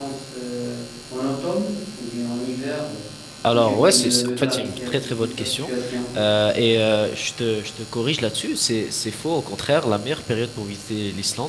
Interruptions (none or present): present